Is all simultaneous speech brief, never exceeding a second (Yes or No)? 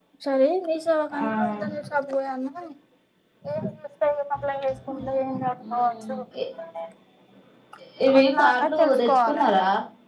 No